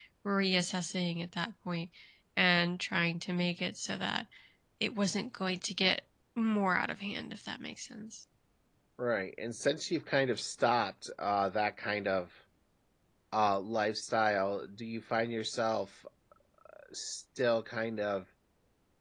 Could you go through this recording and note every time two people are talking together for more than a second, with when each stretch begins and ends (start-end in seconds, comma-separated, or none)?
none